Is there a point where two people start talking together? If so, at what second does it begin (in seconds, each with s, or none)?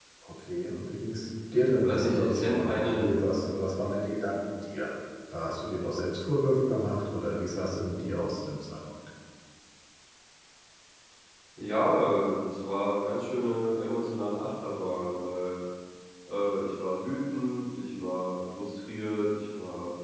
1.8 s